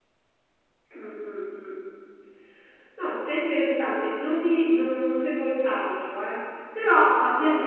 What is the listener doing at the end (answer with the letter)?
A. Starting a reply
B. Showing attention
B